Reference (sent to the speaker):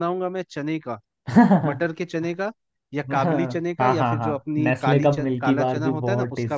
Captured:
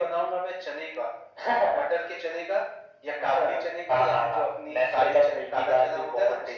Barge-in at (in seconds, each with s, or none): none